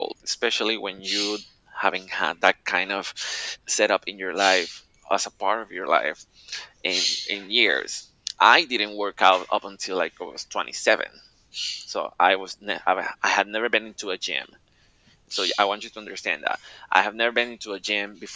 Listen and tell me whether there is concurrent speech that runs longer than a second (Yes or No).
No